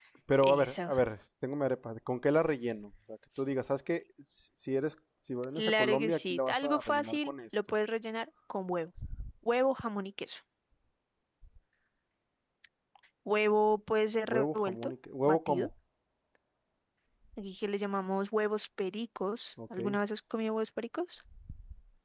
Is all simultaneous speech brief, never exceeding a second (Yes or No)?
No